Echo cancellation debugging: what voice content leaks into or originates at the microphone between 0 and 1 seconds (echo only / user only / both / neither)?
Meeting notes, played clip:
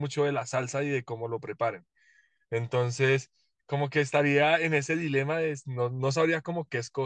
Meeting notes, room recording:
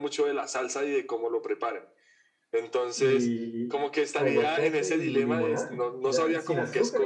echo only